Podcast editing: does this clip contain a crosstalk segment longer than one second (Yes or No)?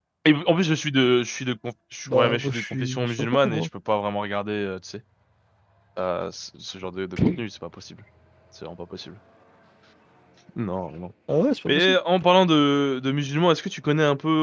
Yes